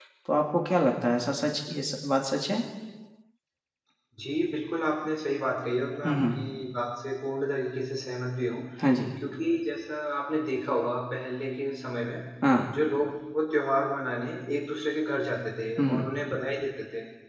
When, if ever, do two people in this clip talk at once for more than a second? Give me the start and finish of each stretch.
none

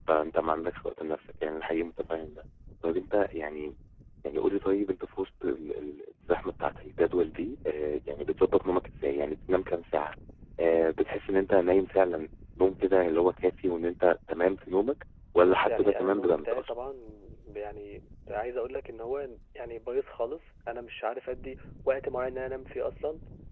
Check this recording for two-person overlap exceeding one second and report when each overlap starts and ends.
15.4-16.7

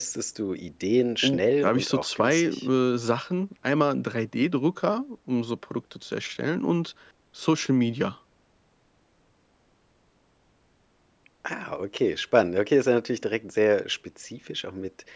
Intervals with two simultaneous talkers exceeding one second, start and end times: 1.2-2.7

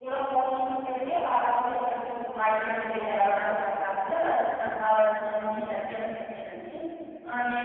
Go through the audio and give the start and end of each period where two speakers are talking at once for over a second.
2.4-4.1

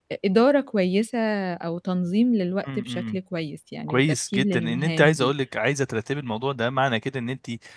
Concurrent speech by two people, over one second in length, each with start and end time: 3.9-5.3

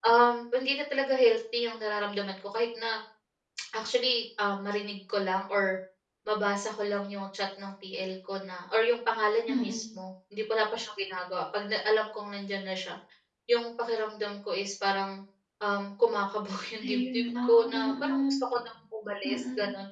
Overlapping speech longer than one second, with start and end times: 16.8-18.2

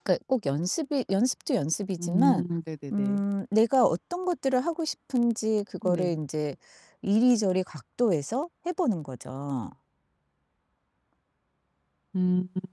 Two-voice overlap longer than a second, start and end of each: none

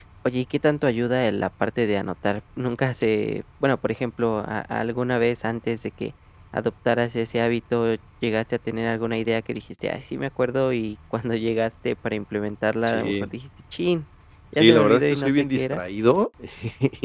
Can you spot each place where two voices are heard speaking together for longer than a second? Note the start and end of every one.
14.6-15.8

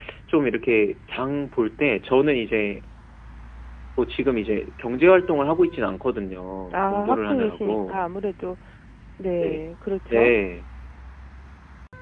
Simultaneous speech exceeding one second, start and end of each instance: 6.7-8.0

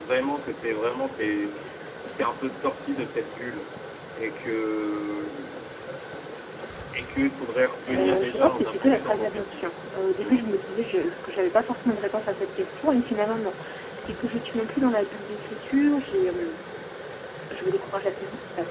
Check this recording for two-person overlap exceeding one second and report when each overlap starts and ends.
7.8-9.6

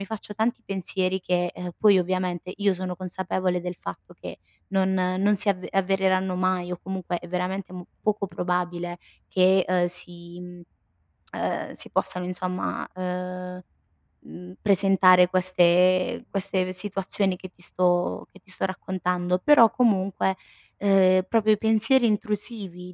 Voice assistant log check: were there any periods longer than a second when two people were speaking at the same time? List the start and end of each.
none

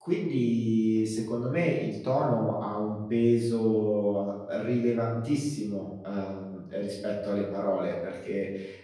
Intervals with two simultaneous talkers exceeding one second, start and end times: none

